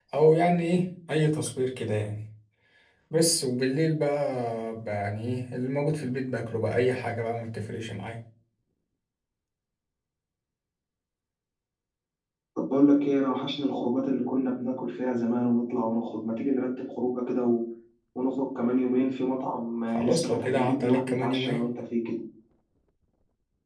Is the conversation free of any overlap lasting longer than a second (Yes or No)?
No